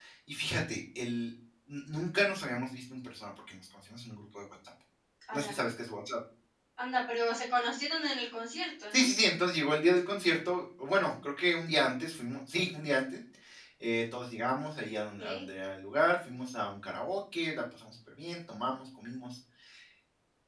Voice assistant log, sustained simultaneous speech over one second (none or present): none